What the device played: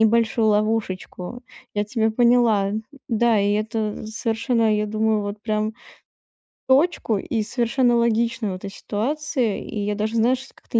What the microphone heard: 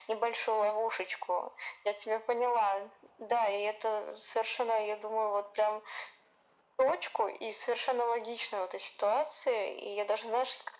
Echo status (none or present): present